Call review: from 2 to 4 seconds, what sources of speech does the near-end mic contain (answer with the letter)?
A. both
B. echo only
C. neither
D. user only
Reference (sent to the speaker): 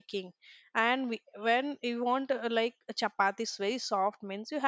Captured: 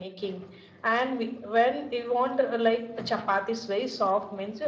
B